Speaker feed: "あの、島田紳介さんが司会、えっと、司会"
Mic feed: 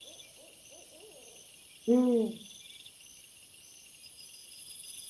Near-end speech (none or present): present